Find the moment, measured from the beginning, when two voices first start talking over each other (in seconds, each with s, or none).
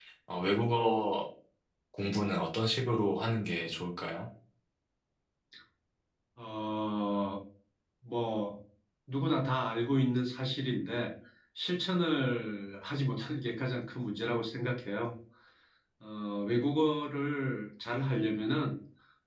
none